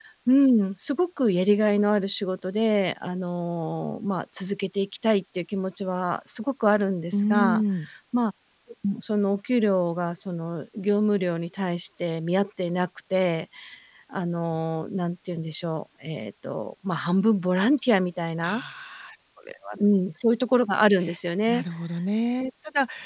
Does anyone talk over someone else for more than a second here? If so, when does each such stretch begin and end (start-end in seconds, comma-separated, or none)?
none